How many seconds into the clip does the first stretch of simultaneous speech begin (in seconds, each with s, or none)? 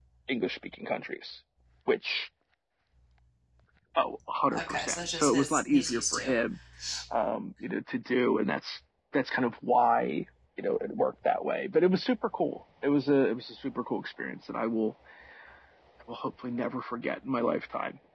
4.6 s